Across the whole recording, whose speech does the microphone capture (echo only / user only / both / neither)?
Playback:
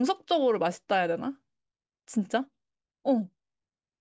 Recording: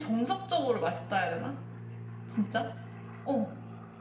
echo only